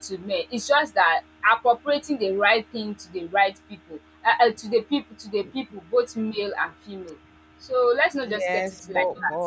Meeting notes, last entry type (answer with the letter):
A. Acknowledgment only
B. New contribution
B